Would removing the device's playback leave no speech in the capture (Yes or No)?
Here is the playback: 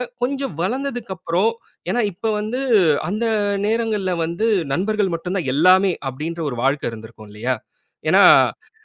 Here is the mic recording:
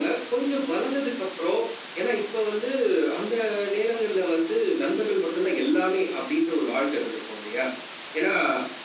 Yes